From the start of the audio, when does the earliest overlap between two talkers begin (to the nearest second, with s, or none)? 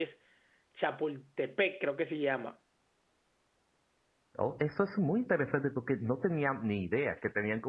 none